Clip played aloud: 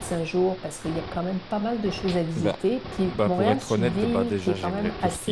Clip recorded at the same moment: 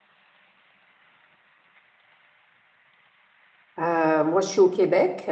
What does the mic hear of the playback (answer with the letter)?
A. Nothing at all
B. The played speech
A